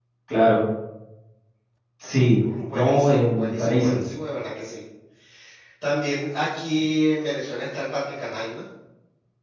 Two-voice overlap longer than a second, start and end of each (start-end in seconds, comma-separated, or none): 2.7-4.0